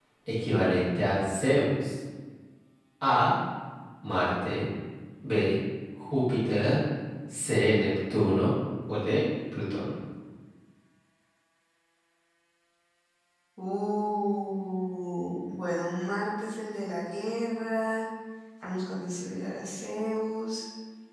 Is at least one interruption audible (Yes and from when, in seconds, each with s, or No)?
No